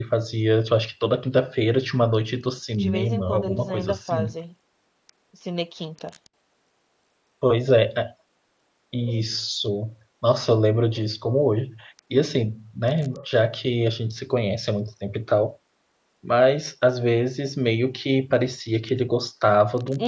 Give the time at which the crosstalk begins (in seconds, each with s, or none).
2.8 s